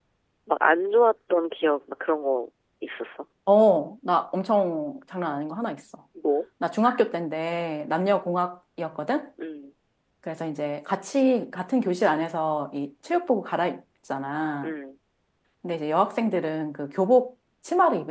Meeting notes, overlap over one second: none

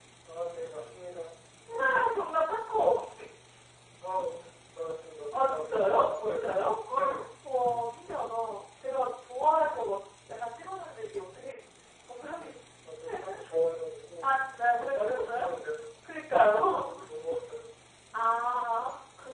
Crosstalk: present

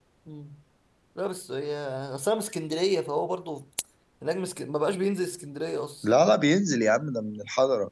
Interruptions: none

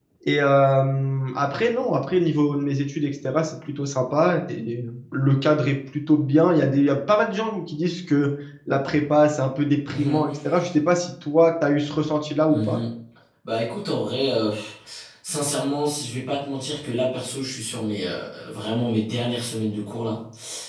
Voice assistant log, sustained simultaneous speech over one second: none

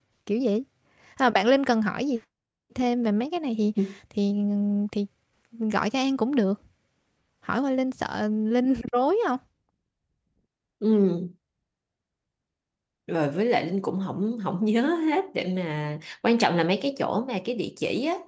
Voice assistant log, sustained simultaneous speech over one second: none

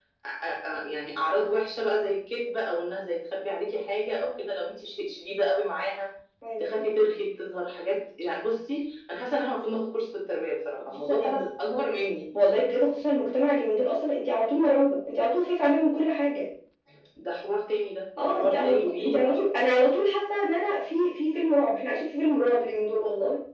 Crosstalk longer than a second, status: present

